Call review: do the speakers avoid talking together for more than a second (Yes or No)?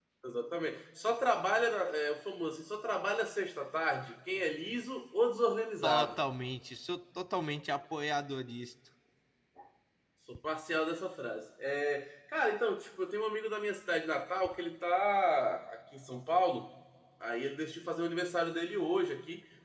Yes